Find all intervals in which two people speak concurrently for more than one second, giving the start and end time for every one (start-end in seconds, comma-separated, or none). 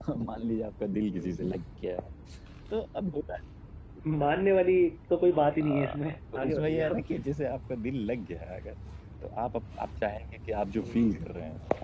5.6-7.0